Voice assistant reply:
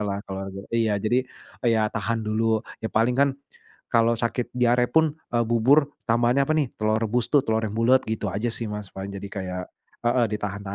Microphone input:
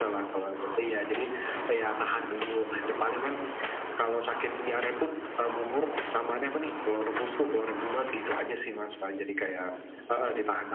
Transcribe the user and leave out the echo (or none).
none